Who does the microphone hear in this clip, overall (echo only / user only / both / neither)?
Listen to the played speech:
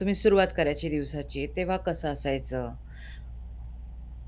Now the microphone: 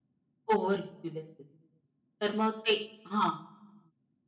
user only